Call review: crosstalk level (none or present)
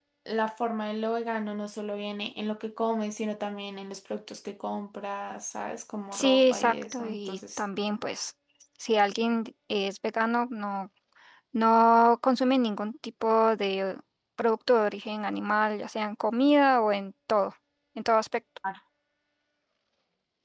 present